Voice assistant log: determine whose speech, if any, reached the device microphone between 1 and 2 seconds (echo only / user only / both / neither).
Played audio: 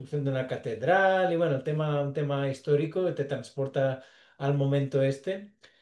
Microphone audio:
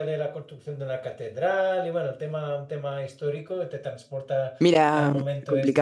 echo only